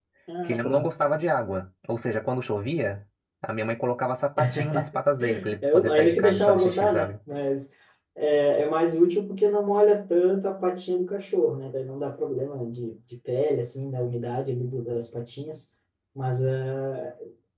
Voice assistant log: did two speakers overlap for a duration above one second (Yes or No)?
Yes